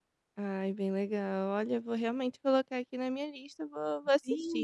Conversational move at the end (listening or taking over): taking over